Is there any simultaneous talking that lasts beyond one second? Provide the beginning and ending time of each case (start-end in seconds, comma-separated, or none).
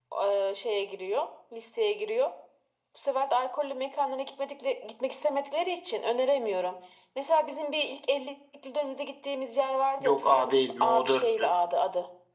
10.0-11.5